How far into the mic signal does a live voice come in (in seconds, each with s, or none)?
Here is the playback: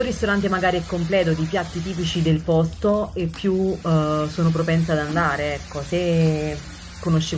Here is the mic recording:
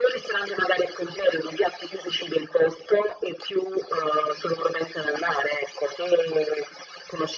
none